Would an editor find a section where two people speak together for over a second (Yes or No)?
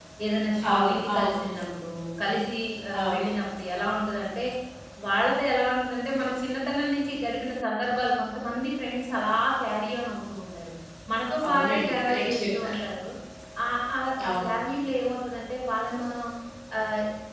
Yes